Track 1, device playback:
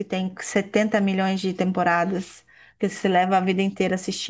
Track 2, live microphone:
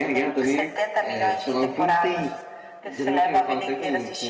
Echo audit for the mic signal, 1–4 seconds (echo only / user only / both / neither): both